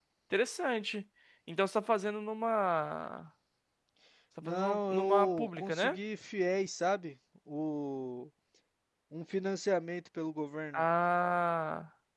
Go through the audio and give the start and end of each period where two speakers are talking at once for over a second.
4.4-6.0

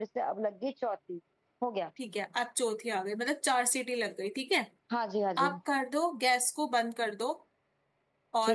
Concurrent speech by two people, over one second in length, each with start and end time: none

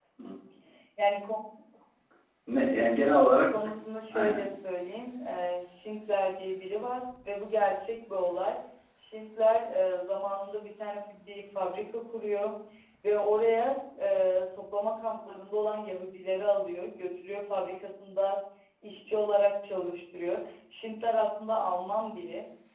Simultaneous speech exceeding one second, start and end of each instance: none

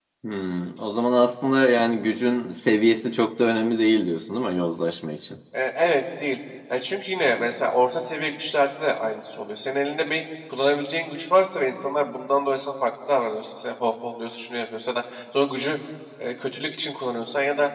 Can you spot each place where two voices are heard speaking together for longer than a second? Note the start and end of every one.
none

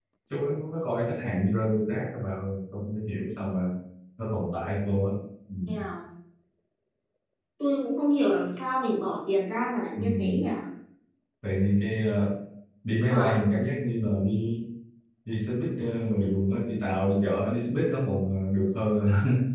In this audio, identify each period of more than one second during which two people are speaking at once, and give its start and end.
none

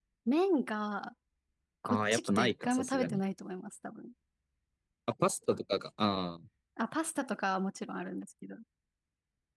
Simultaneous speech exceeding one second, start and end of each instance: 1.9-3.2

